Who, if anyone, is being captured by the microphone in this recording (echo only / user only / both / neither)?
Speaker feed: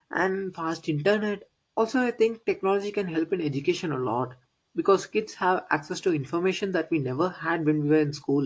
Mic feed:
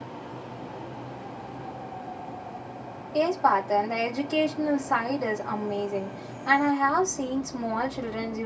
user only